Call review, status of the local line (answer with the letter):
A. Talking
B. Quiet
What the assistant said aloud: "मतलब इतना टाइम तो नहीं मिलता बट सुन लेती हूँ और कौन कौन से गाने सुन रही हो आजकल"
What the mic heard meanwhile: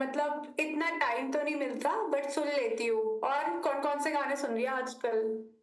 B